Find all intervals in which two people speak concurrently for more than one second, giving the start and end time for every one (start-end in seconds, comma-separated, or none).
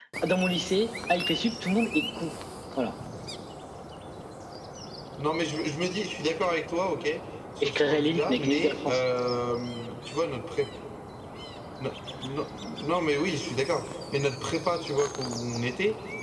7.6-9.0